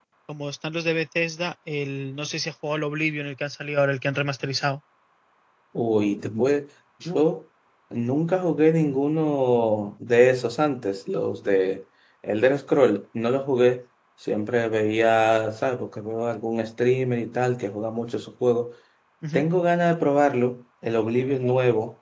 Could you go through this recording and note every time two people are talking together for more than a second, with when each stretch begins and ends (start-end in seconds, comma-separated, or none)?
none